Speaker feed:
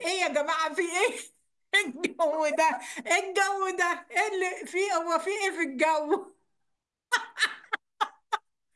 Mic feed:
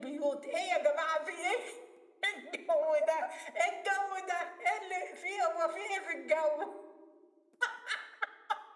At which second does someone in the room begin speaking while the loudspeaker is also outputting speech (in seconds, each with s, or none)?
none